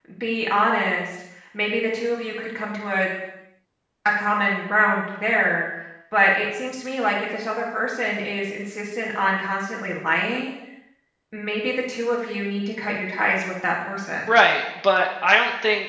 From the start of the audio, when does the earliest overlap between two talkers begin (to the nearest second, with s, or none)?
none